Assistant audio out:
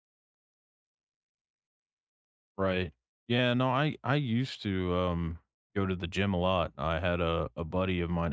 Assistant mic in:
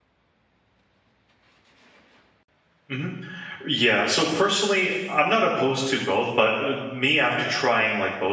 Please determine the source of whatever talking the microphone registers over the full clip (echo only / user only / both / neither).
user only